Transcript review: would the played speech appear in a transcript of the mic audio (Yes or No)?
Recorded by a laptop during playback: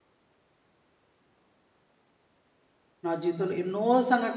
No